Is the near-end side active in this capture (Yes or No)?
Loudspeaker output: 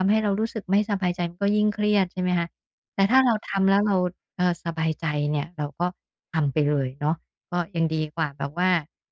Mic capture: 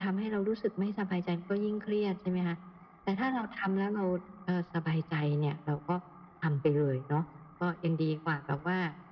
No